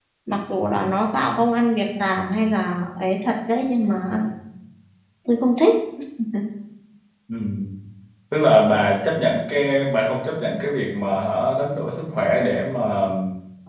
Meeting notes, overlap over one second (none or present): none